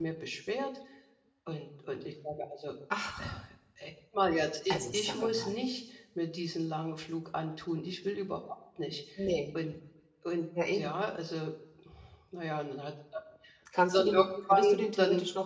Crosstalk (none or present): present